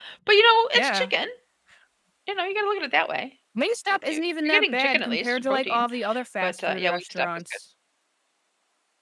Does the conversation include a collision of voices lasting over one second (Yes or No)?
Yes